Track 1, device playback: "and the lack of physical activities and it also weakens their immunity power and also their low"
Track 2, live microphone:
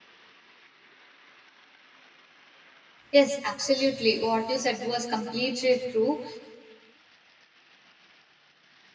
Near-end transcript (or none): Yes, absolutely. What you said was completely true.